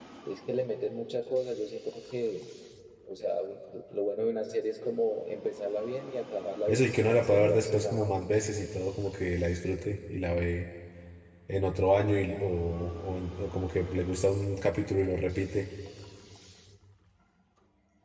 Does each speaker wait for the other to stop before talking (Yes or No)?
No